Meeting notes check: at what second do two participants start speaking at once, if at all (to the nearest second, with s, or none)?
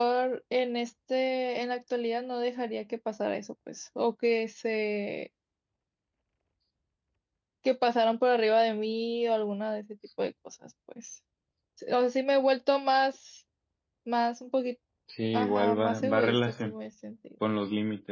15 s